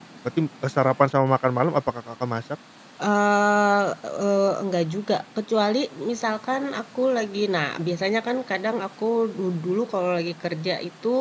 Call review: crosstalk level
none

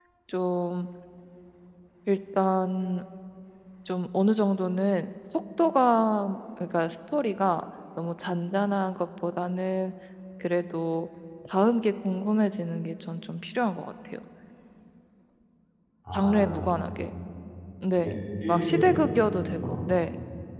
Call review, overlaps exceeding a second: present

